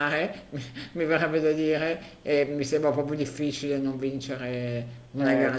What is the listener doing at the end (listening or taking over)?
taking over